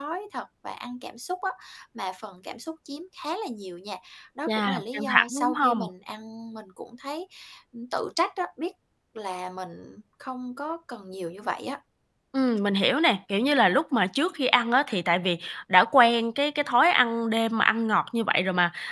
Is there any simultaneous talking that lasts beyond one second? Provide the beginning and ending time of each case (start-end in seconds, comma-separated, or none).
4.5-5.9